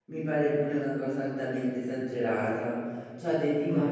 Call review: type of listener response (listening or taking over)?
listening